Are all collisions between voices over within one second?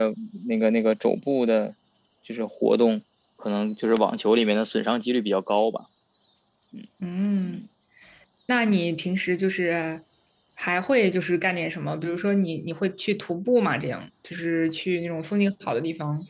Yes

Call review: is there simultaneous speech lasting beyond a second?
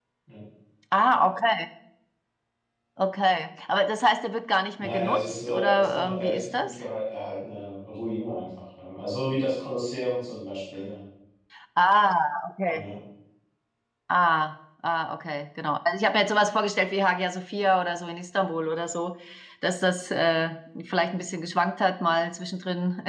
Yes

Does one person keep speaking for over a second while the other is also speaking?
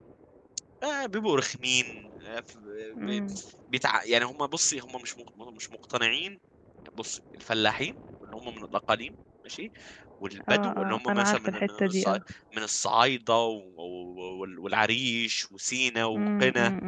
Yes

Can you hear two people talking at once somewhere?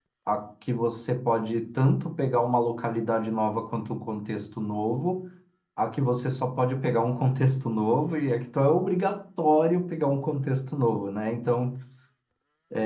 No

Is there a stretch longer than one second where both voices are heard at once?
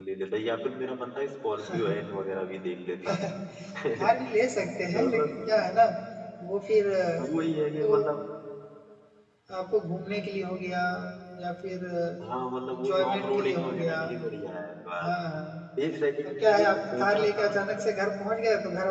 Yes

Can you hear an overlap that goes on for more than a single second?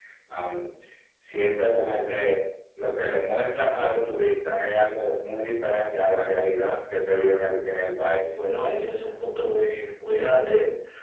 No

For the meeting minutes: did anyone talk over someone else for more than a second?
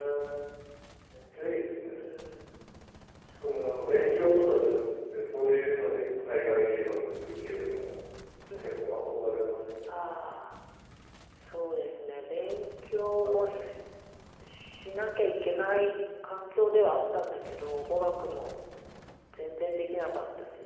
No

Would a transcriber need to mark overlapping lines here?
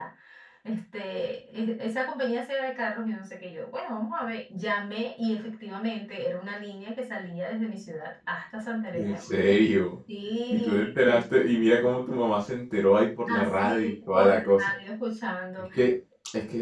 Yes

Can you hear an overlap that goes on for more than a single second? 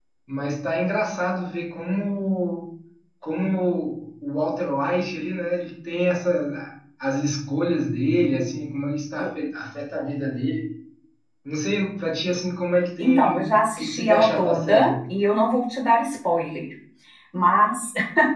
Yes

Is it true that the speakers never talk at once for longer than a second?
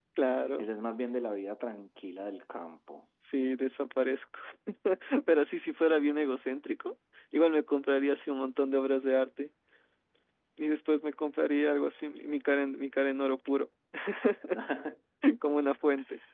Yes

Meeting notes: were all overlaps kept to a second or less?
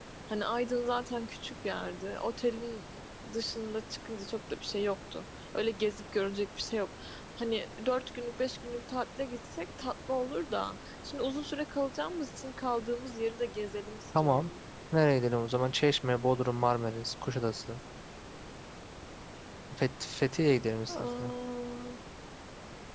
Yes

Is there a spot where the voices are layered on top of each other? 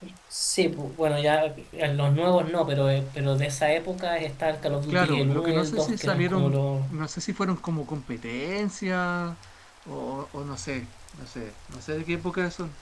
Yes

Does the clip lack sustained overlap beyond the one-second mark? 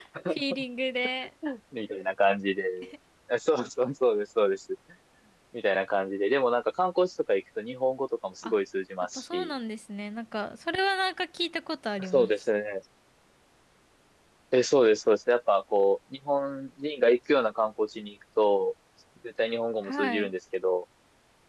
Yes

